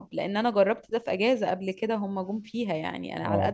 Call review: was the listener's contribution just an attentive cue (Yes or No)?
Yes